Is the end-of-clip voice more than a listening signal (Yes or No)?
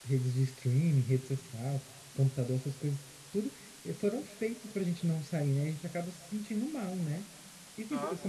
No